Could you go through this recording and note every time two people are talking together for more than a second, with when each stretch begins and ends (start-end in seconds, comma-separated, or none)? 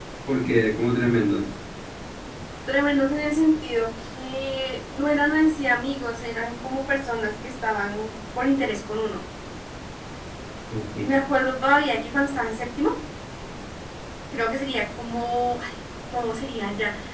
none